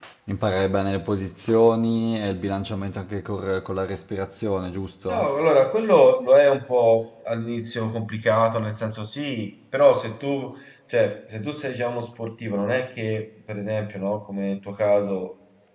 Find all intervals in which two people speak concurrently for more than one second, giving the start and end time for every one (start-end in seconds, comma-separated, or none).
none